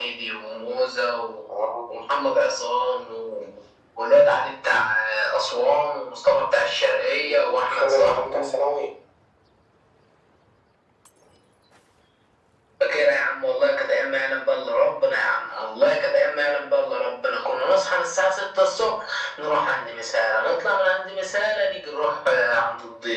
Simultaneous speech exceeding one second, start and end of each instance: 7.2-8.5

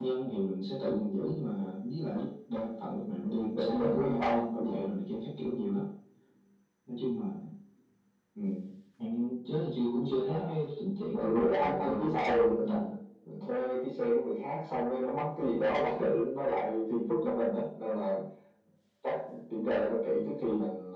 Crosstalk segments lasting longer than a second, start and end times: 3.2-4.7, 11.2-13.0

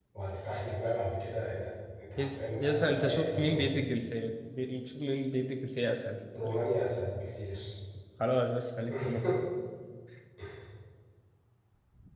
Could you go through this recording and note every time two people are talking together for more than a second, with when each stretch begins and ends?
2.2-3.7

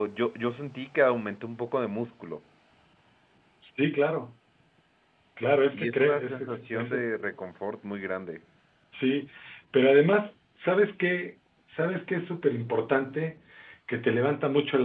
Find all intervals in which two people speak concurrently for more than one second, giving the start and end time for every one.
5.7-7.0

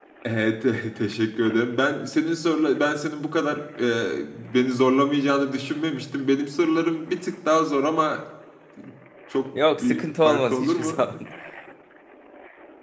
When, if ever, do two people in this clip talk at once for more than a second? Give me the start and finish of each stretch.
9.7-10.9

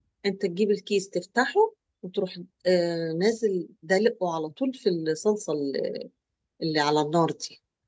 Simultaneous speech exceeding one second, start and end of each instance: none

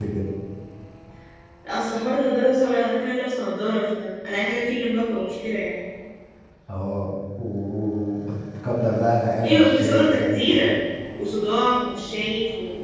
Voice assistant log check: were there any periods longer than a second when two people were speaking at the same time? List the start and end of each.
9.4-10.7

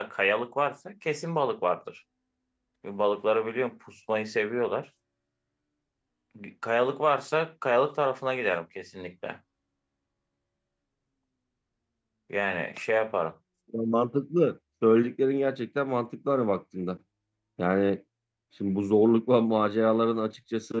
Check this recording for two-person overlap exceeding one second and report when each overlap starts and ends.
none

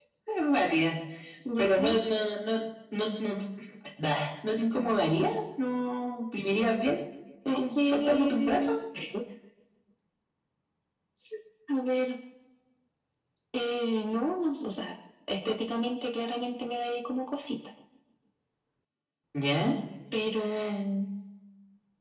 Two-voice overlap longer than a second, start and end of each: 7.5-8.8

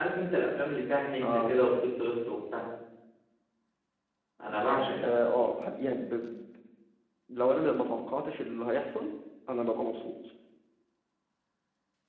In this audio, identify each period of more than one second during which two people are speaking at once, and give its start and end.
none

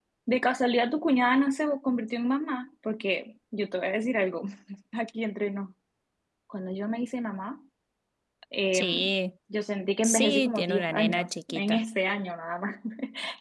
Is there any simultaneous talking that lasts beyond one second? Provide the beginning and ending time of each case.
10.0-11.8

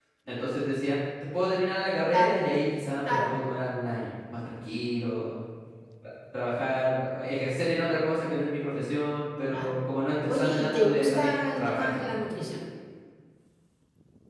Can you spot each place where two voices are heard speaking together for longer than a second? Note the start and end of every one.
10.2-12.1

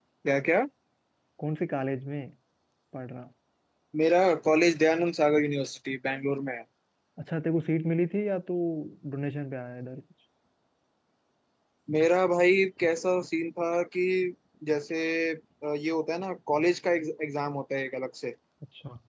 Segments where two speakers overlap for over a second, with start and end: none

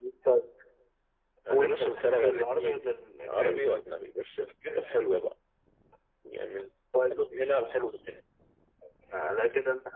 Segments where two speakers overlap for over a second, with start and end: 1.5-2.9

